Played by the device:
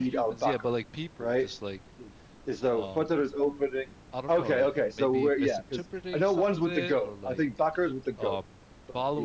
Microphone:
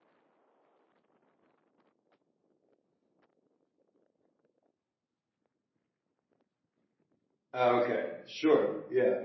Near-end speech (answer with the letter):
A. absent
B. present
B